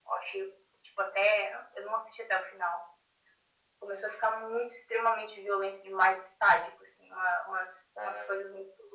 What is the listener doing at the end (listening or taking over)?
listening